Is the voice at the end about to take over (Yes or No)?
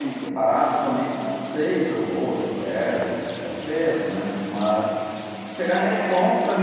No